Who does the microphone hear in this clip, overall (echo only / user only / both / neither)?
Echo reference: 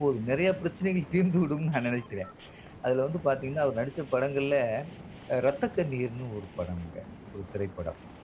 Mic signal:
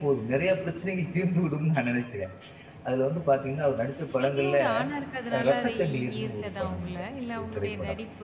both